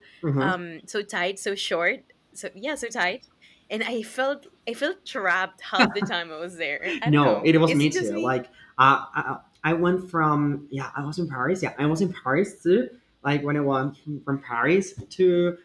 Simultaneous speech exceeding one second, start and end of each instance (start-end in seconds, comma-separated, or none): 7.0-8.3